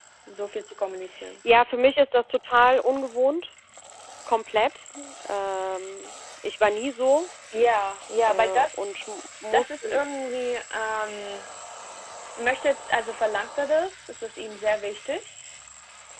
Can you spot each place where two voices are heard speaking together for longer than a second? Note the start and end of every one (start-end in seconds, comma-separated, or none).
none